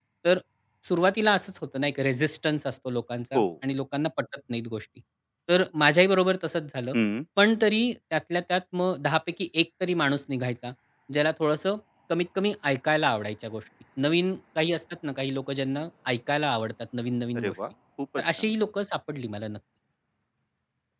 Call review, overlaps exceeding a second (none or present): none